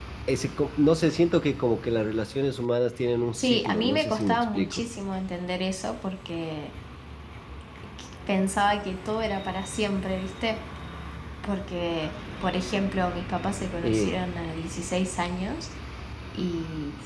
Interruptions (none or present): present